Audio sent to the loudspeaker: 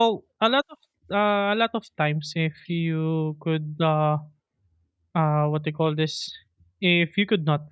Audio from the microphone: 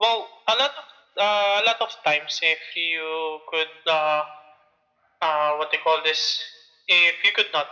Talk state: echo only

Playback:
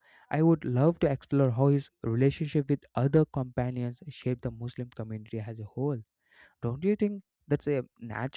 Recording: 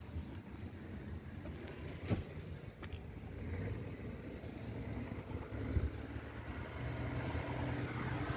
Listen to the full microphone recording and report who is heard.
neither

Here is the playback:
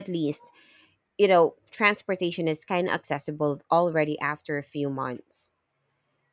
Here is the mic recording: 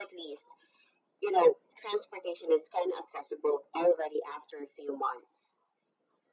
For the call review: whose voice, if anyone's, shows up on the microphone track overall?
echo only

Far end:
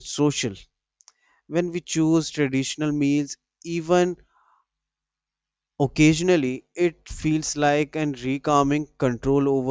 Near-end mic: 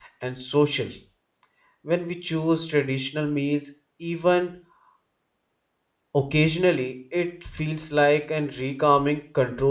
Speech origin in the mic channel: echo only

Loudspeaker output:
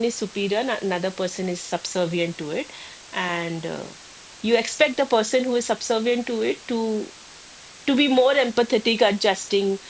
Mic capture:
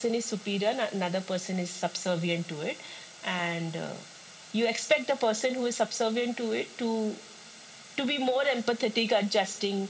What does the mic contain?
echo only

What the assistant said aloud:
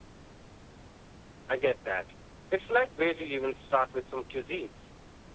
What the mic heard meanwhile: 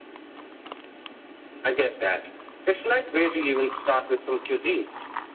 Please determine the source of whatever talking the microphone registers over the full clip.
echo only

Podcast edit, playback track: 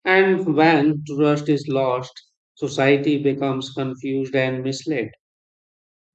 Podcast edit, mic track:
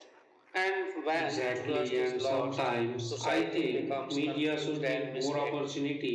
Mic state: both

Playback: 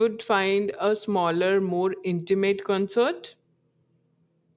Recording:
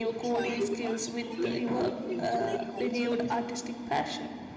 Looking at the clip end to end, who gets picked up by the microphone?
both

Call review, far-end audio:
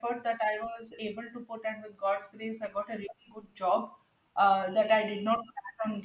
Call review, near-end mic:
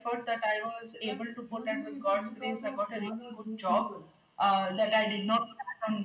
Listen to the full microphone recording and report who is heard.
both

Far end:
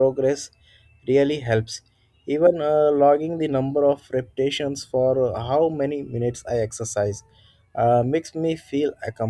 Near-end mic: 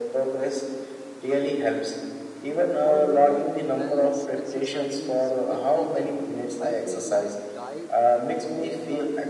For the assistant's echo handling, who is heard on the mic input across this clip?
both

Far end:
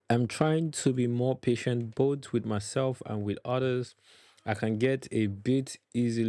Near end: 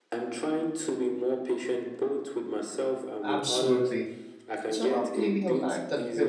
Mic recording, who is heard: both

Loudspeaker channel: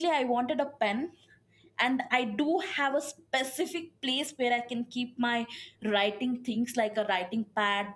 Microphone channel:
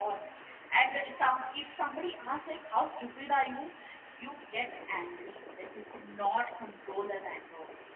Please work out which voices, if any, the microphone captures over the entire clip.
user only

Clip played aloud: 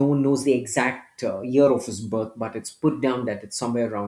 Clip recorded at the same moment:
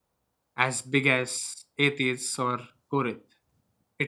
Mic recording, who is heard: user only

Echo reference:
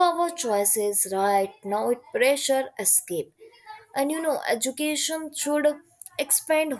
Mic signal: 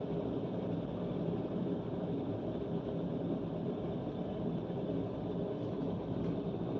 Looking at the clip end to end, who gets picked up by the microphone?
neither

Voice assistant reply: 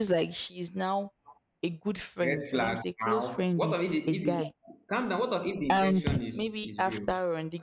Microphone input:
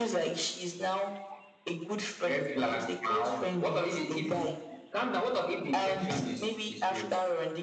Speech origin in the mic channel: echo only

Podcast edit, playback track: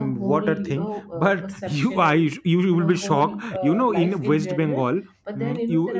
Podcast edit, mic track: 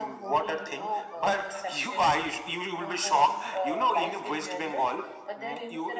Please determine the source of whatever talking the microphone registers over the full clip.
echo only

